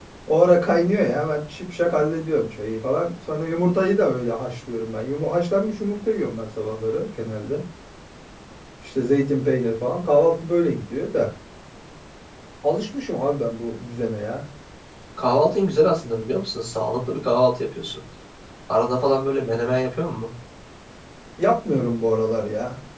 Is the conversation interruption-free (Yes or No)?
Yes